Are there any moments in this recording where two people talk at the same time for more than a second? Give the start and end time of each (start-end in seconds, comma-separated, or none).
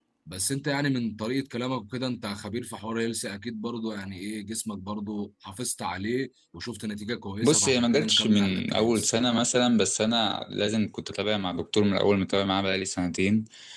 7.4-9.1